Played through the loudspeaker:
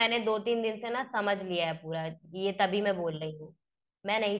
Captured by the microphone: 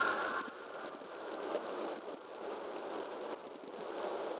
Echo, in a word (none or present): none